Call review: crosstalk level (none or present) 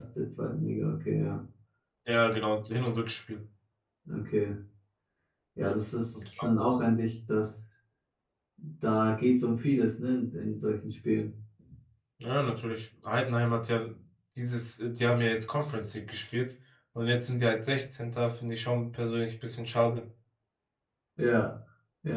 none